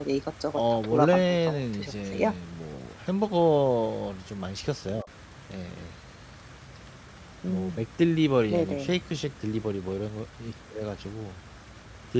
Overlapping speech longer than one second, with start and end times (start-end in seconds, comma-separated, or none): 0.6-2.3